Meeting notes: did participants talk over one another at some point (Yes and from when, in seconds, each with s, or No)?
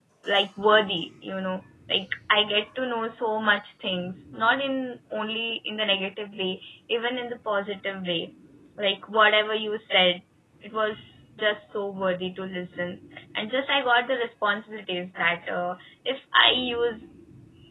No